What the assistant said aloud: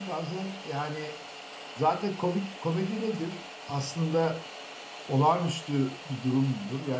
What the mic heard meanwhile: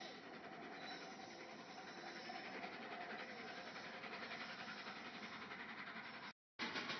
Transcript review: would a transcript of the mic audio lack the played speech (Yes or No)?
Yes